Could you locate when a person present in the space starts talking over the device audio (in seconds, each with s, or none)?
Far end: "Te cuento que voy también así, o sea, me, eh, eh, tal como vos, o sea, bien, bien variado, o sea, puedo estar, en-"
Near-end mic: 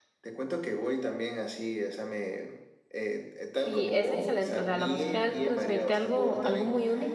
3.5 s